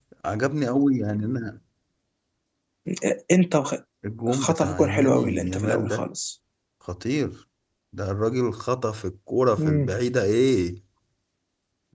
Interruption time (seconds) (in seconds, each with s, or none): 4.3 s